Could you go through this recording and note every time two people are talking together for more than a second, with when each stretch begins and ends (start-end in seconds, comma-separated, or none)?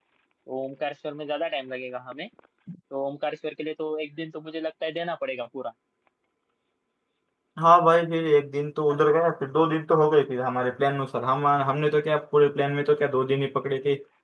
none